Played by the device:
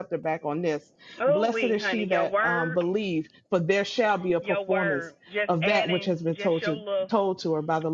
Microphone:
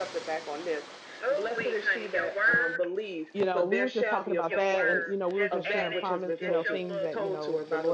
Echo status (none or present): present